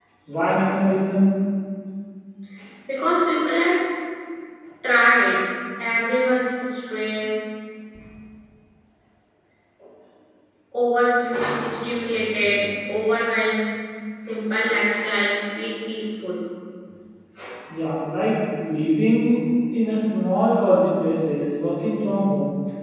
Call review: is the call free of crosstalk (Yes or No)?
Yes